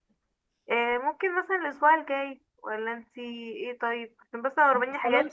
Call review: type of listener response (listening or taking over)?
listening